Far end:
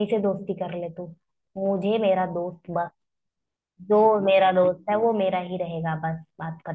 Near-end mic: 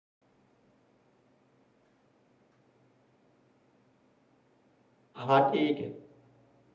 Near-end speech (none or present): present